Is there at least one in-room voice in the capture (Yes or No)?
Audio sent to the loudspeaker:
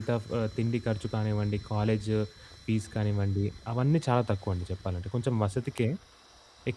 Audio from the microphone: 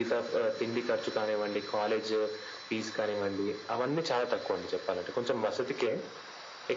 No